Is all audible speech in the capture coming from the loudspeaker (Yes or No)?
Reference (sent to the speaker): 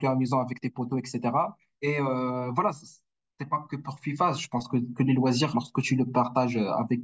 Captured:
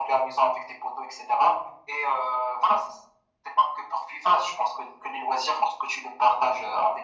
Yes